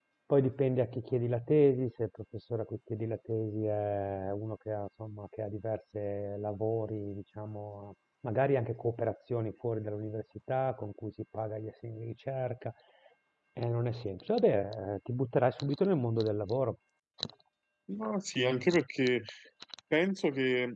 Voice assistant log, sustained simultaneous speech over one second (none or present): none